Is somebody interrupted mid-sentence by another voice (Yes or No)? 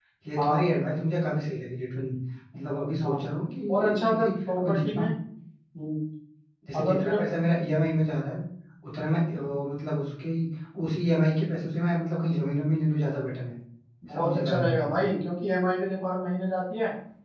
Yes